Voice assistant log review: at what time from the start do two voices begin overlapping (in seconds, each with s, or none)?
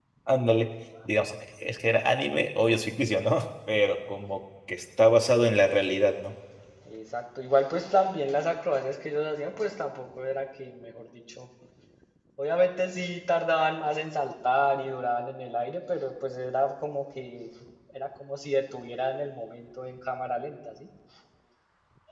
none